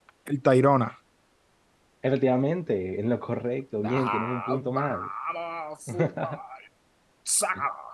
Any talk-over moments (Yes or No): Yes